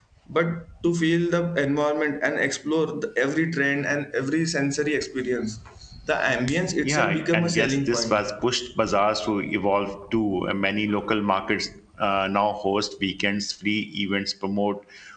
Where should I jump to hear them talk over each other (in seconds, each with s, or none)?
6.8 s